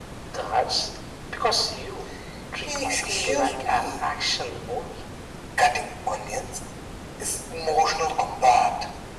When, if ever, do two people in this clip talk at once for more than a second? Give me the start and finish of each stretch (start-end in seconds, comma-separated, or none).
2.6-4.1